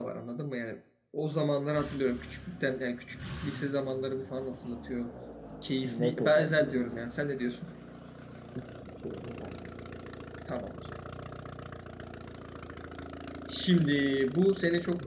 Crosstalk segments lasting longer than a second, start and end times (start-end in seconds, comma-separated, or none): 5.8-7.1